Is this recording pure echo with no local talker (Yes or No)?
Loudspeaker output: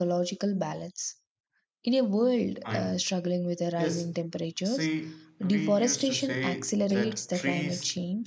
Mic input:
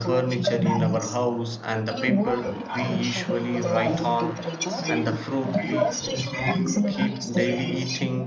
No